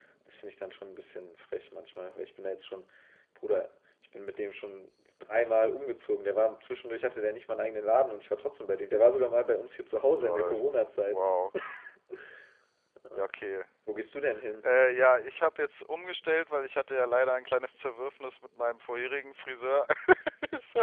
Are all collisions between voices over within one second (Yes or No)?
Yes